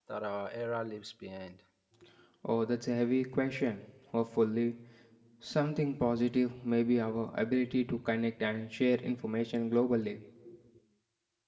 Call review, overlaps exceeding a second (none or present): none